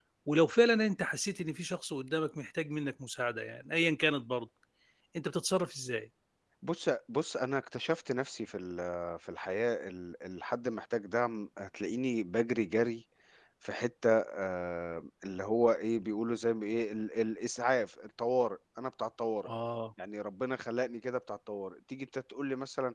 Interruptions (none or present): none